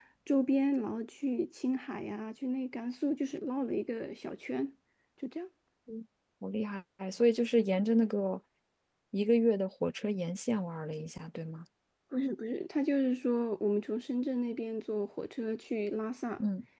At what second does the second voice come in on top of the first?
none

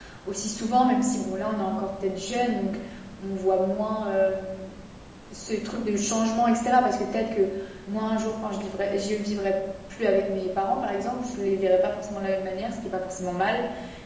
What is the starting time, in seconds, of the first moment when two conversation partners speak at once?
none

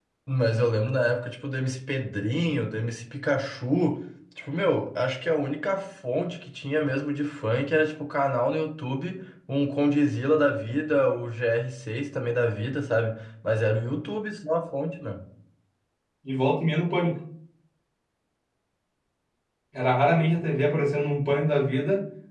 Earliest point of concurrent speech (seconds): none

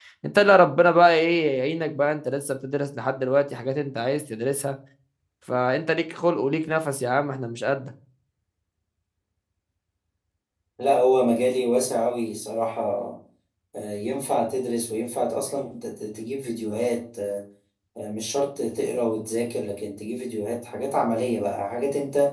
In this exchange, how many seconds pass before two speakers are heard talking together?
none

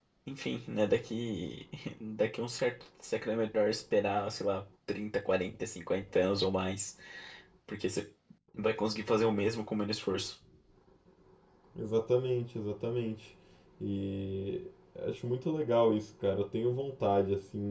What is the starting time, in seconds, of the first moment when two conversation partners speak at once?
none

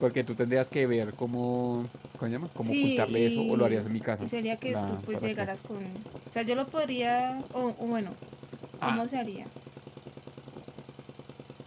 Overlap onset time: 2.7 s

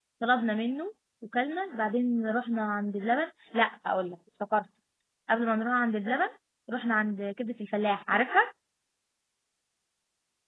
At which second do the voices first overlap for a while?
none

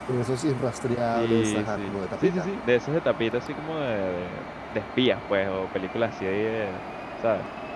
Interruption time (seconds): 1.1 s

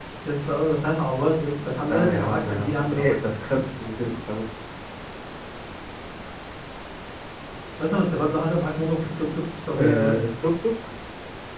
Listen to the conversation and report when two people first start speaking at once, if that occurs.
1.9 s

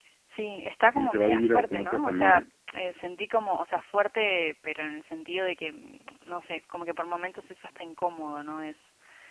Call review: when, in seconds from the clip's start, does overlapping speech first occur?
0.8 s

